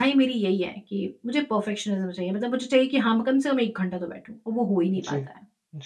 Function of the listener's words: taking over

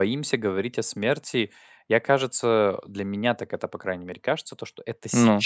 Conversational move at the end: listening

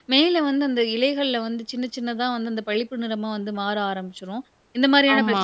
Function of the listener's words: listening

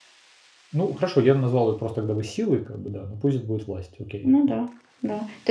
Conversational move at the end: taking over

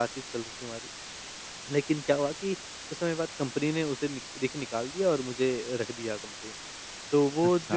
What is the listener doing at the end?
listening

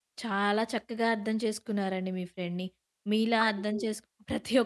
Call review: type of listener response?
listening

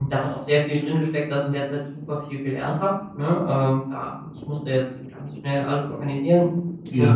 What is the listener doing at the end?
listening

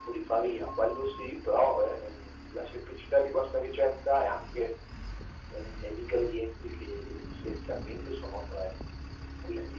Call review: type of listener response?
listening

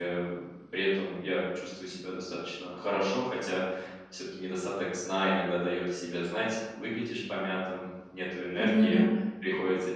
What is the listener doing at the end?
listening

